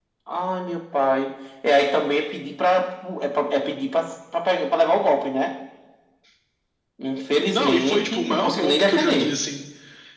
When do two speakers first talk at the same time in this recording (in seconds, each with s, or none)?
7.5 s